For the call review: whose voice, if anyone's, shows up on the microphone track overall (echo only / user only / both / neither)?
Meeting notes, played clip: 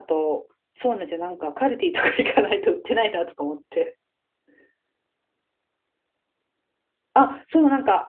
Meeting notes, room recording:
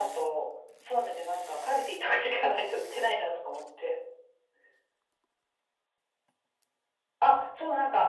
echo only